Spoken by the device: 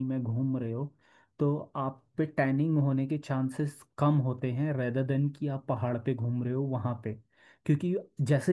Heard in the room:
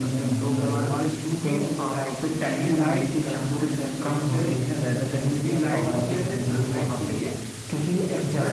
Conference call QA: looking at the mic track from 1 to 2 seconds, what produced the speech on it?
both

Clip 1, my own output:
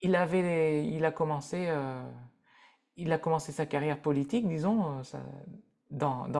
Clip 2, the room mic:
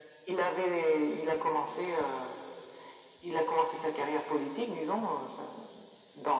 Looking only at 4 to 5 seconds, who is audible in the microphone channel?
echo only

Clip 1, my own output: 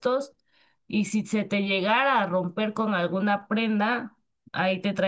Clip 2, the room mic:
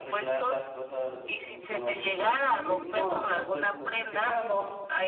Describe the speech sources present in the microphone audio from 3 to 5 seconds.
both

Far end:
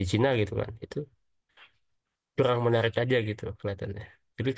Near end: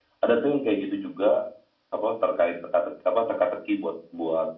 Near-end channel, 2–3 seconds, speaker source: user only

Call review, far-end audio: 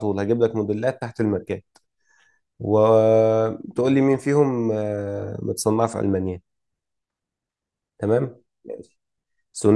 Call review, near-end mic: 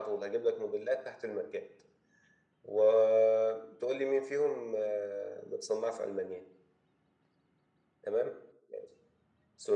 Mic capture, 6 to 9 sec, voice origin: echo only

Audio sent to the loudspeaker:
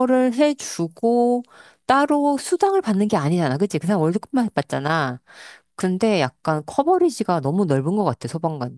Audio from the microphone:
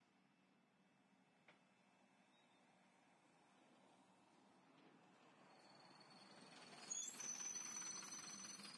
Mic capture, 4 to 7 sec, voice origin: neither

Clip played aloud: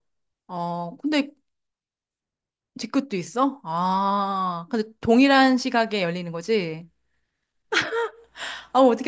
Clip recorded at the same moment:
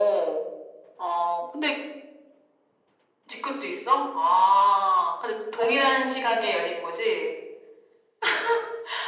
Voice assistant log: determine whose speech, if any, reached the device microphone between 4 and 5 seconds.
echo only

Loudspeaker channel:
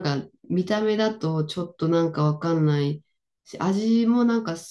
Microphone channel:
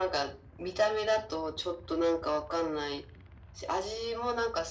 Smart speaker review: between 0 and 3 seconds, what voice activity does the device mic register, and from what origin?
echo only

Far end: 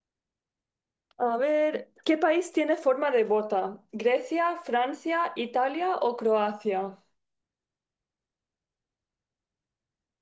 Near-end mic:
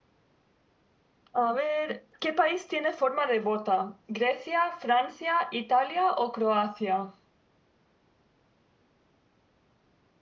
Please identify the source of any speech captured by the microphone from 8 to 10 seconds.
neither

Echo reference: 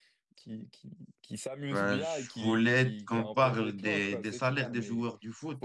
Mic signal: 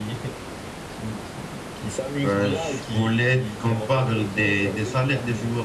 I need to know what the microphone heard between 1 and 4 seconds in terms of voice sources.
echo only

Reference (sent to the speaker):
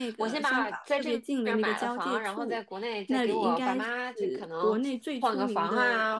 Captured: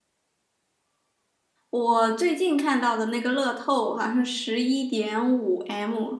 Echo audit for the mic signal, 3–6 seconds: user only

